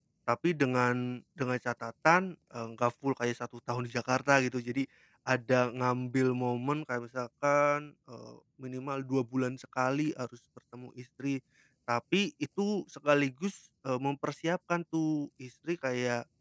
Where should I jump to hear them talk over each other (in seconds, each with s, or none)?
none